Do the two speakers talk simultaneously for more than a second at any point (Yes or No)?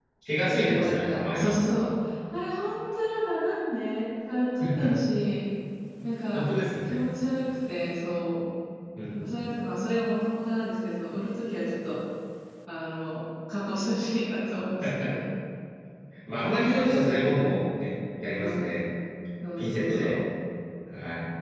Yes